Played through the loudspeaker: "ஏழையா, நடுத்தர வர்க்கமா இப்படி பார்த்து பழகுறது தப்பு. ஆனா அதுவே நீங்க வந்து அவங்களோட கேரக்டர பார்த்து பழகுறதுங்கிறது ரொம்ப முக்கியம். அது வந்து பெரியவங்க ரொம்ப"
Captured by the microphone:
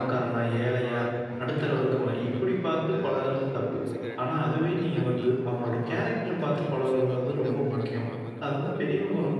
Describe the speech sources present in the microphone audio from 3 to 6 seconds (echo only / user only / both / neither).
both